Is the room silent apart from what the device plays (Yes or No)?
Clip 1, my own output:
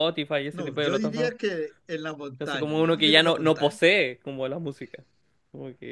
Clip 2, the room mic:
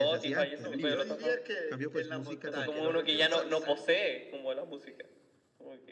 No